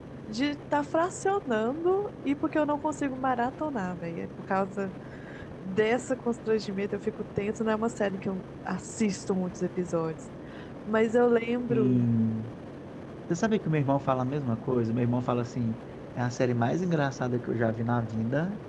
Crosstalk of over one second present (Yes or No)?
No